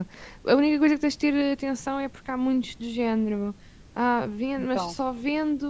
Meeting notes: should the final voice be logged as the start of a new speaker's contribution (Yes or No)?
No